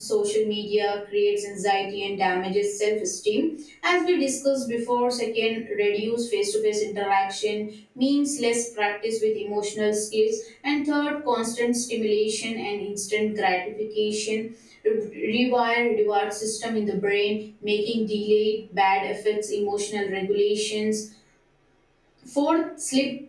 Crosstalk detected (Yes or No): No